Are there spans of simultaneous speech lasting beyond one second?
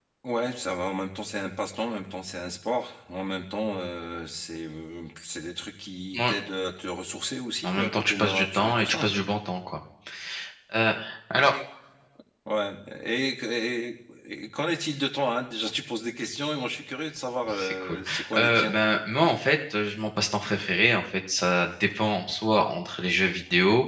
Yes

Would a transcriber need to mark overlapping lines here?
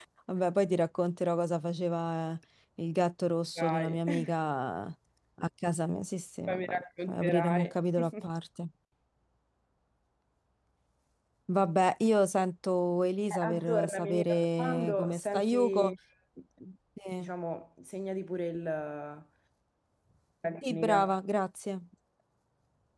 Yes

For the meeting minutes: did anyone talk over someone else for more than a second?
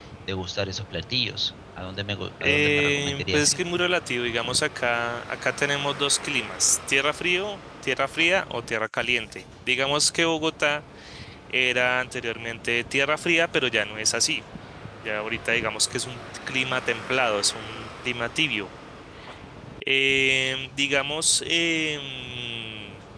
Yes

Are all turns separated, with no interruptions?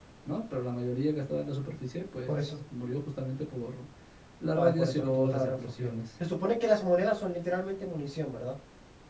No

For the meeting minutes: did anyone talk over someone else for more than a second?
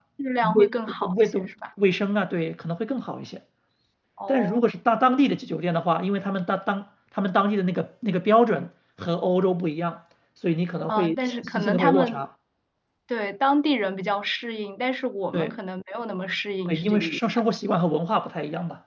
Yes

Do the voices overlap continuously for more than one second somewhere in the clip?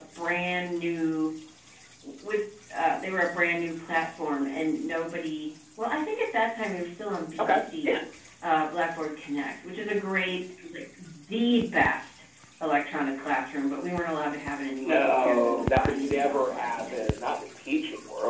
Yes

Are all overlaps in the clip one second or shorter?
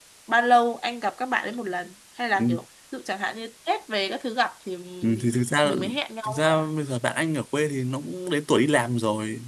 Yes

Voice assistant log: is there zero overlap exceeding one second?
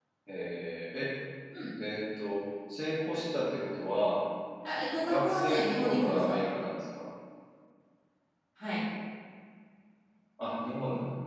No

